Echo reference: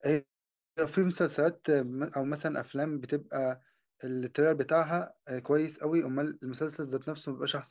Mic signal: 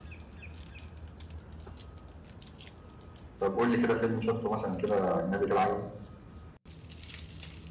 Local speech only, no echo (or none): طب قول لي كده فيلم شفته مثلا كده اجنبي كده عجبك